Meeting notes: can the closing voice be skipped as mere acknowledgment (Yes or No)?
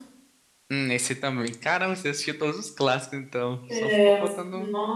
No